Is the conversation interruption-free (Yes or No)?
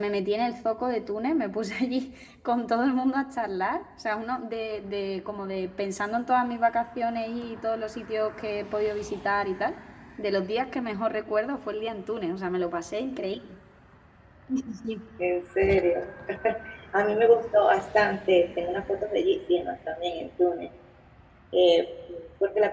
Yes